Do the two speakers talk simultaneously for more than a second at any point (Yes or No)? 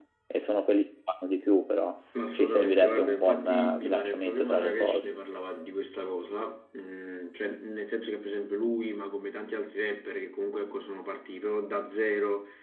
Yes